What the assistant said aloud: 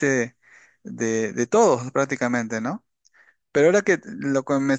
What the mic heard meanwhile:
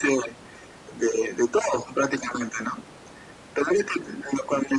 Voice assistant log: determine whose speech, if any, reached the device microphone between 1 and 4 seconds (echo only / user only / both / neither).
echo only